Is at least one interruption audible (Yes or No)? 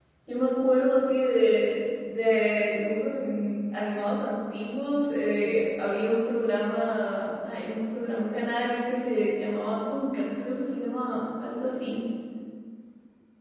No